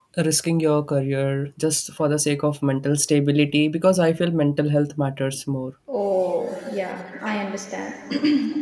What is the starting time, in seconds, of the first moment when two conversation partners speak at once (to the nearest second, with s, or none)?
none